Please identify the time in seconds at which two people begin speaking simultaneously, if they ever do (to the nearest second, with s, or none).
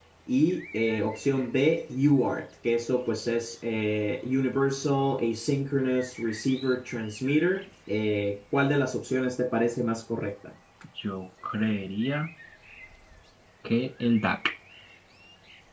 none